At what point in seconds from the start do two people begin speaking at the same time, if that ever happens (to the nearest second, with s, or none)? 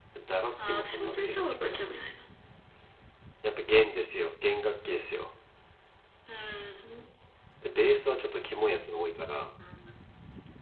1 s